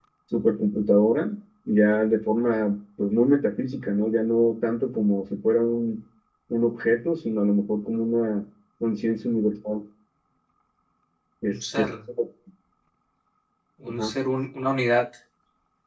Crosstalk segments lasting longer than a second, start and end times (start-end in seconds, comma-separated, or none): none